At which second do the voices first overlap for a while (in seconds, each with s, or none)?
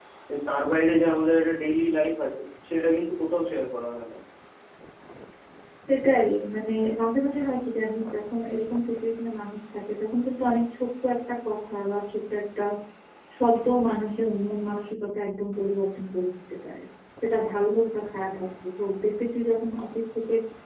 none